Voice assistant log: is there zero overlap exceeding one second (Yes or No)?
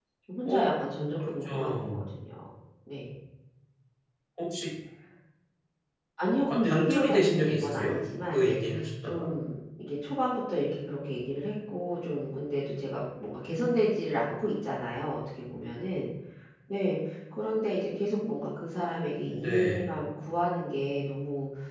No